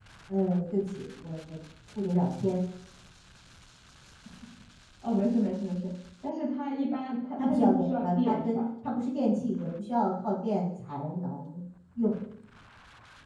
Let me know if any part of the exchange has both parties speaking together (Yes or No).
Yes